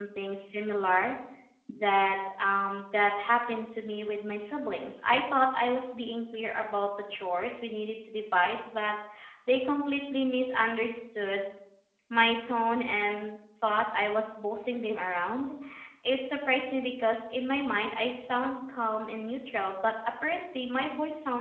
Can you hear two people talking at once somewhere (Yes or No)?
No